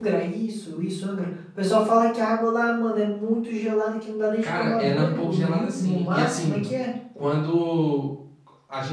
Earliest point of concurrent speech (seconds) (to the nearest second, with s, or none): 4 s